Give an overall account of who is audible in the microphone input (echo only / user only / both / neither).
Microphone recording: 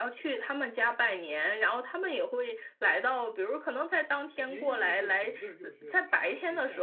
both